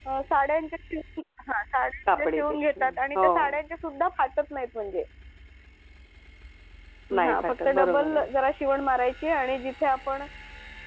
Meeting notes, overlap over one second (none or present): present